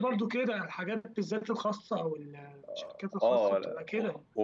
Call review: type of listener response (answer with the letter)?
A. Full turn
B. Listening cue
A